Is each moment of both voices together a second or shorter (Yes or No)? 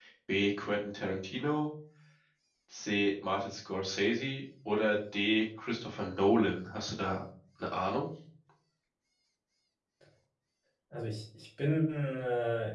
Yes